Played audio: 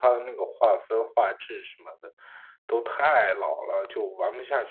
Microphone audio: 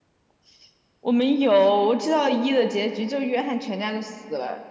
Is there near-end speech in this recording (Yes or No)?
Yes